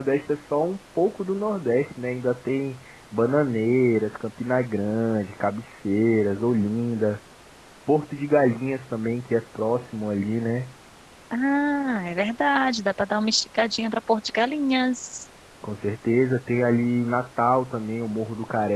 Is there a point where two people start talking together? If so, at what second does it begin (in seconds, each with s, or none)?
none